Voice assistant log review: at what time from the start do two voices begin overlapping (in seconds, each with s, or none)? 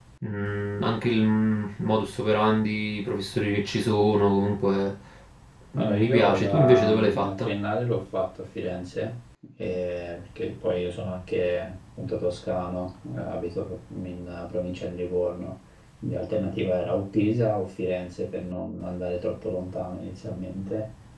5.8 s